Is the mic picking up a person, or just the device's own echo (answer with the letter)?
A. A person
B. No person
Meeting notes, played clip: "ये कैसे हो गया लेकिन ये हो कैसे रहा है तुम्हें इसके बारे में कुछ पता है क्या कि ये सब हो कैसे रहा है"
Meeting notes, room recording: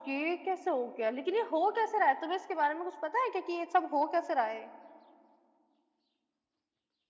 B